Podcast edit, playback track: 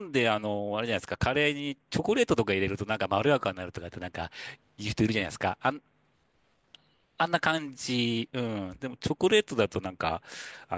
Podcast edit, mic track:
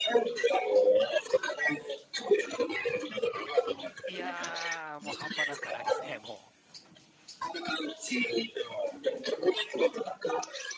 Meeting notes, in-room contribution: present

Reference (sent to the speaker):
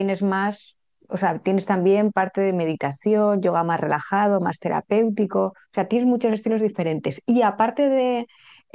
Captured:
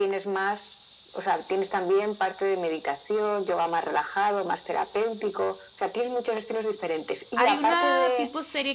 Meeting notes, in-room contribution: present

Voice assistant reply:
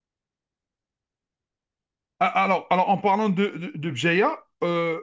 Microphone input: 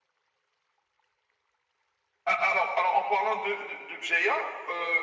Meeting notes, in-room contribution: none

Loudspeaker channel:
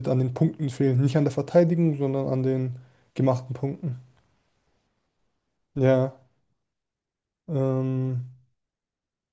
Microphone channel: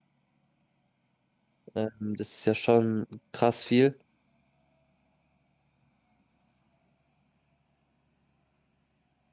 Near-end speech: present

